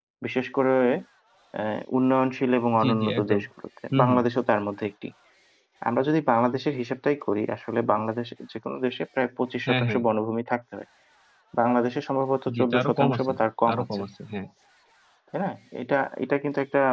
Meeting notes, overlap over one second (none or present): present